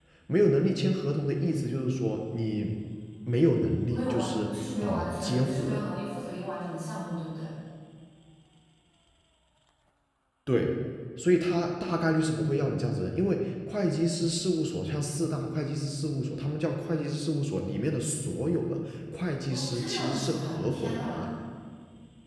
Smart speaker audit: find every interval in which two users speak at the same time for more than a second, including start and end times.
3.9-5.8, 19.5-21.2

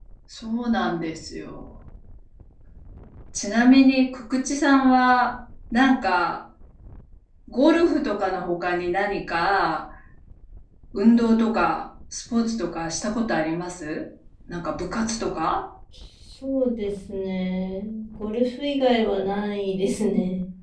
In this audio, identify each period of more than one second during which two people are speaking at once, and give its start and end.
none

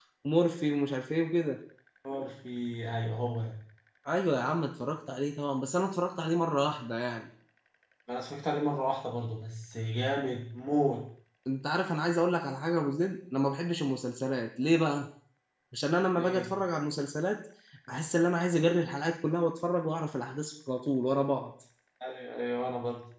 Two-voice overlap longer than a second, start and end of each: none

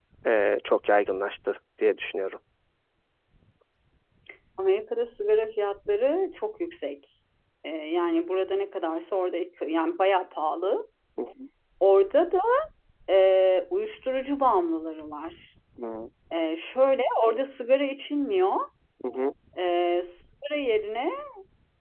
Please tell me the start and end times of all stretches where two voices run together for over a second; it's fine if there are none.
none

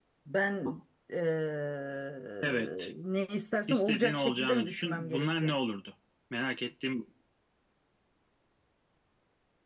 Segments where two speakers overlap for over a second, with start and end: 3.7-5.5

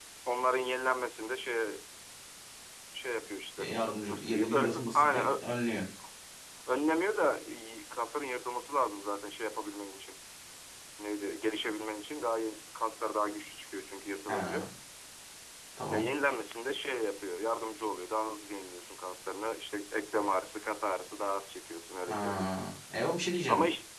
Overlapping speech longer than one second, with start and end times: 4.1-5.5

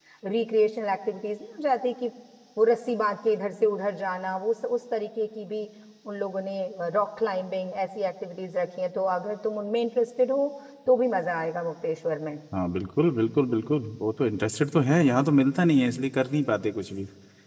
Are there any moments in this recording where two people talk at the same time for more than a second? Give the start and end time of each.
none

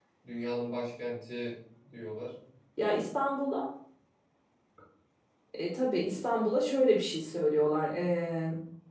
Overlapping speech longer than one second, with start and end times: none

